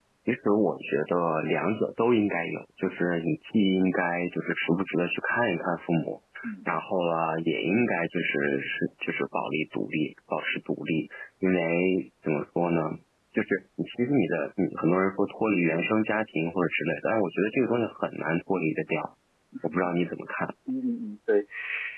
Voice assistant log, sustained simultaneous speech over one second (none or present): none